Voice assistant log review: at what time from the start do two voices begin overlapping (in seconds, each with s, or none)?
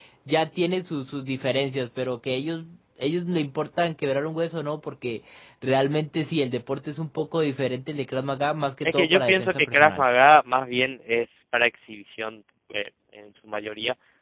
8.8 s